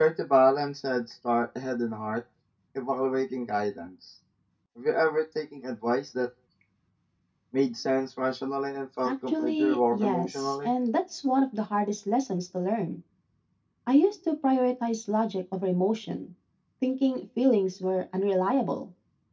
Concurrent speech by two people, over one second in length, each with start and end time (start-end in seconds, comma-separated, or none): 9.0-10.7